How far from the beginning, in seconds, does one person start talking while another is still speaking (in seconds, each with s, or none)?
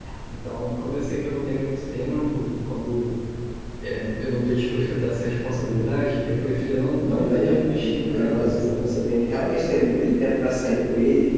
7.0 s